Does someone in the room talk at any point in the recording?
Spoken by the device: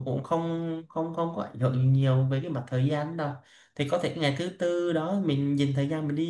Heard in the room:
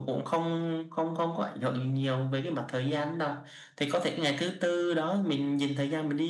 No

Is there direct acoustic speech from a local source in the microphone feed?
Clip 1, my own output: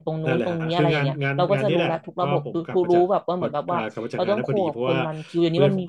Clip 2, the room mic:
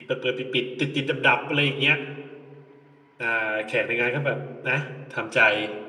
Yes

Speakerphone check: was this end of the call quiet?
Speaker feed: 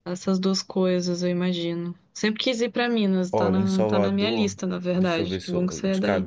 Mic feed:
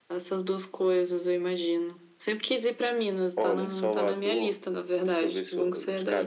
Yes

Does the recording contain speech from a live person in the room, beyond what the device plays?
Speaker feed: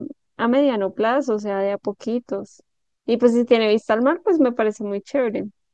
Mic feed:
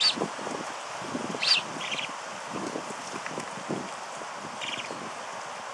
No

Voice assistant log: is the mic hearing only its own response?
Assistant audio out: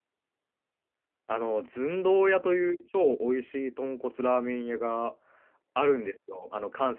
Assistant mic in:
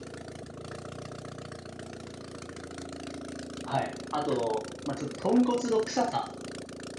No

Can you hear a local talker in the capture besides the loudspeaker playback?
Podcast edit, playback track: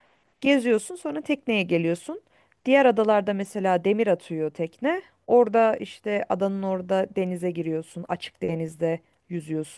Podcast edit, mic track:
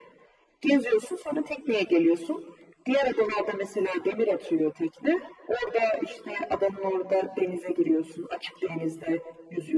No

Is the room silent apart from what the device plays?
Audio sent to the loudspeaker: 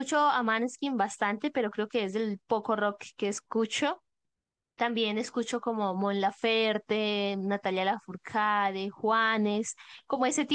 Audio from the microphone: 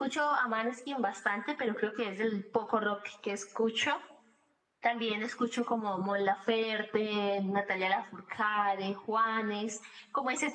Yes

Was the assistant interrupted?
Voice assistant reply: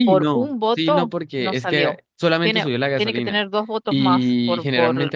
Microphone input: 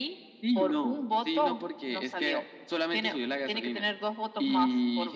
No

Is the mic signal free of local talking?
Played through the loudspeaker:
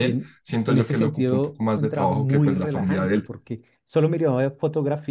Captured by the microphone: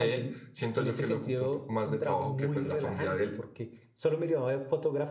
Yes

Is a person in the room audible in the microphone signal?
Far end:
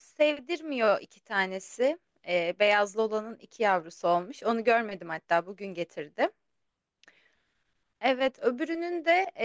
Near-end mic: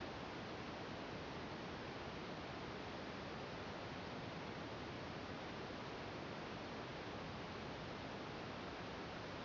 No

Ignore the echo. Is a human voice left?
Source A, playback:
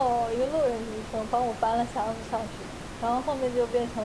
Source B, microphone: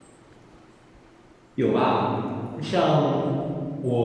Yes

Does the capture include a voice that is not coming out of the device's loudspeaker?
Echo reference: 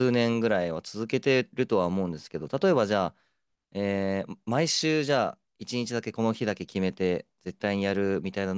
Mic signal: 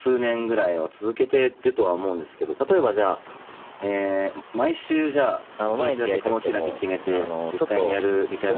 Yes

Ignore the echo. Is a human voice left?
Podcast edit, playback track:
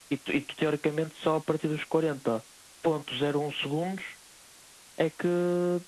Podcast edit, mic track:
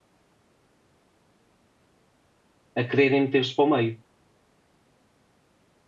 Yes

